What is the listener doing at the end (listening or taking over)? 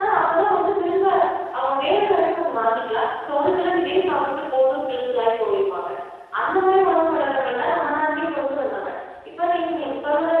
listening